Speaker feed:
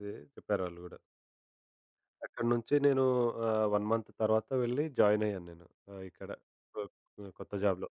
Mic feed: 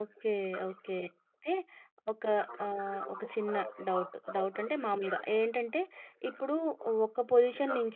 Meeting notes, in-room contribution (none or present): present